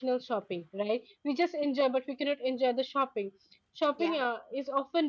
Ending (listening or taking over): listening